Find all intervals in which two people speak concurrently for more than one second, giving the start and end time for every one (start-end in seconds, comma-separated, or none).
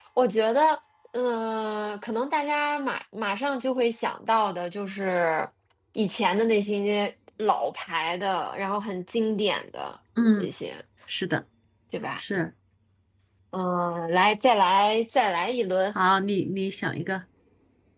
none